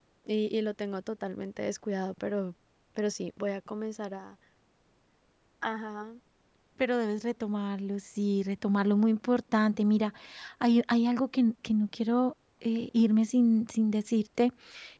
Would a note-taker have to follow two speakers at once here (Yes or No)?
No